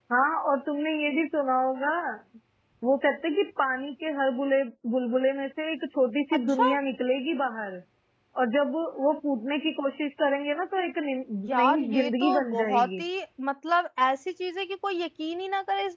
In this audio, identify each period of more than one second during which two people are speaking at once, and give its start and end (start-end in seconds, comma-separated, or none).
11.5-13.0